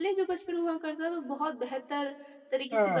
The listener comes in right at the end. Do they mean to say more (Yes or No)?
Yes